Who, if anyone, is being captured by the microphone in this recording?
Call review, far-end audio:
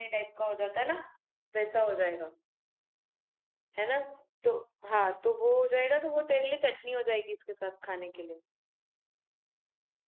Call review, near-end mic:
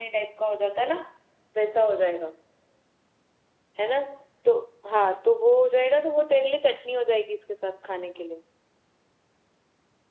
echo only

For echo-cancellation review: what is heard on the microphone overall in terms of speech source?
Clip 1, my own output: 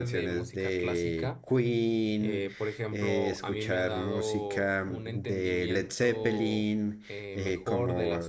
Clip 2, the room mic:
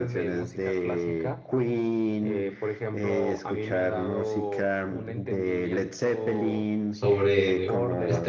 both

